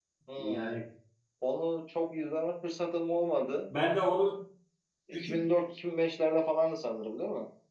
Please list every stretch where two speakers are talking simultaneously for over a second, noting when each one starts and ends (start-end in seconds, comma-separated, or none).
none